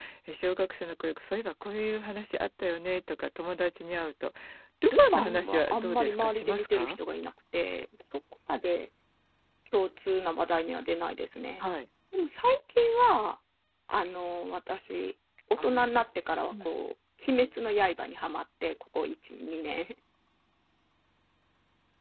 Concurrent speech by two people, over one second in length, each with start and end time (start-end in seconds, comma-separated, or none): 4.9-7.0